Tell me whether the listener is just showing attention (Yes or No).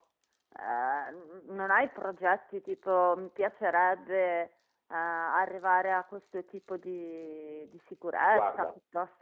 Yes